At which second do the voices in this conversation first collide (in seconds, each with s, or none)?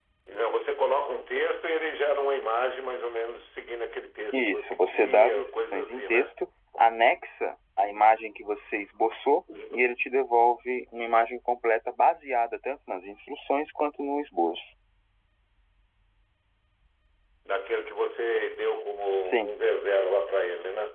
4.3 s